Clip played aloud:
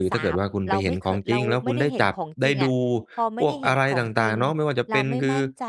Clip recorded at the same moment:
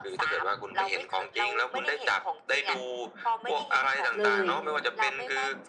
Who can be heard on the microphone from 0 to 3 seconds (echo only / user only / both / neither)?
echo only